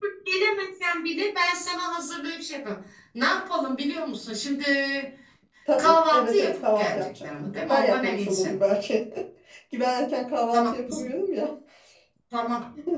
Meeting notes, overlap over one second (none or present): present